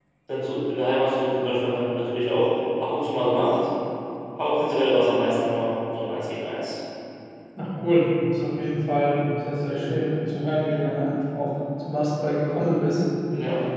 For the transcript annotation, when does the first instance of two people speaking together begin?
none

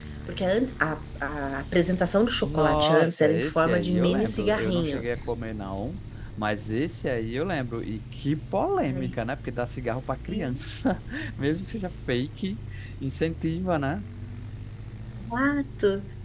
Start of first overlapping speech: 2.4 s

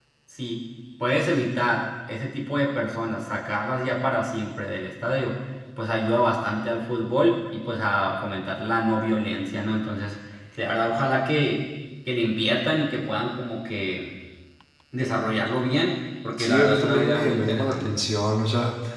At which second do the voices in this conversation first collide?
16.4 s

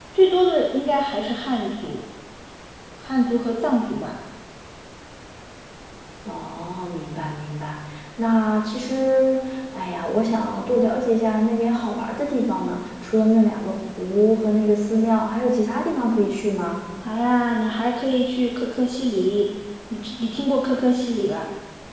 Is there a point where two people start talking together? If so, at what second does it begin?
none

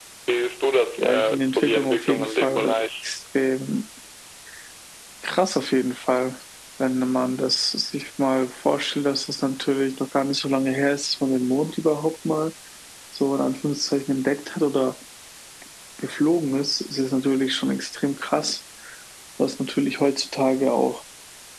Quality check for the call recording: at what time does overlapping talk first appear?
1.0 s

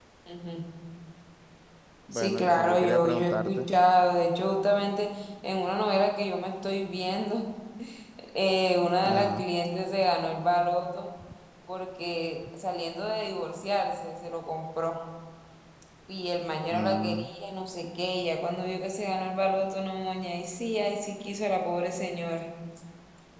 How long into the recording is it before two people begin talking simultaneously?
2.1 s

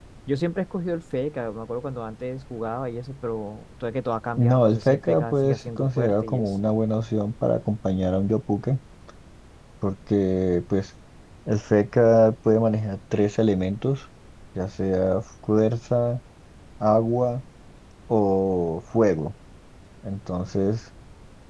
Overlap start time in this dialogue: 4.4 s

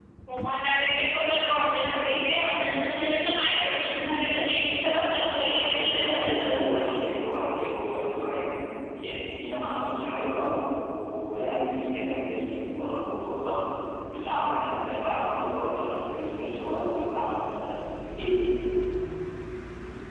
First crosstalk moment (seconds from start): 5.5 s

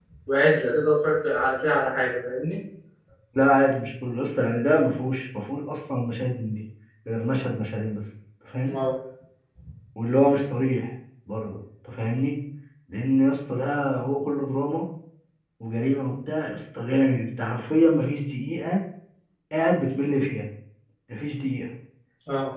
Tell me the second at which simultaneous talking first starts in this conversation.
none

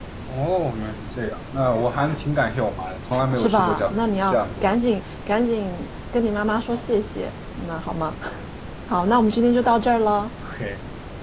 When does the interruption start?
3.4 s

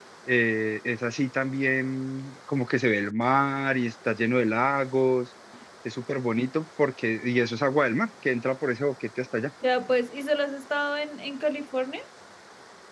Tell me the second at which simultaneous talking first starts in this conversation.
none

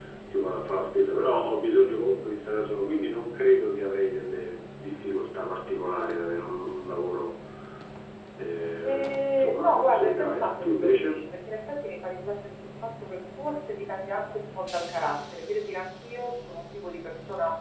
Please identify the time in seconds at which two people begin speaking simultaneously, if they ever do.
8.8 s

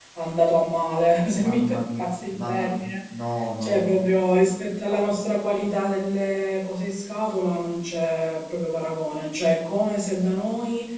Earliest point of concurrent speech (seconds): 1.4 s

